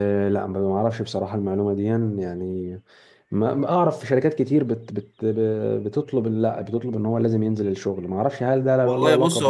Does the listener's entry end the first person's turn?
Yes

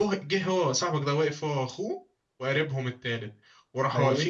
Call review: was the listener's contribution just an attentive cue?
Yes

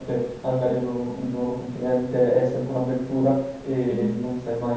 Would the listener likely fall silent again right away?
Yes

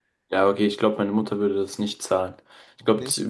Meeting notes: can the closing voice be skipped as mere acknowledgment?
Yes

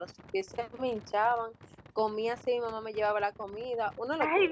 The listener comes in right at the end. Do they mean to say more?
Yes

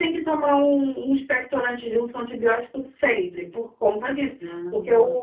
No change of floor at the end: Yes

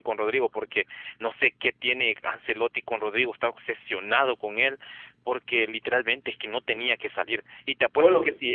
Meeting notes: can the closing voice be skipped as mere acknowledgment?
Yes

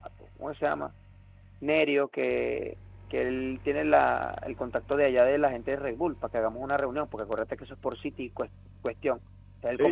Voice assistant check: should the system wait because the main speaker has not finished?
No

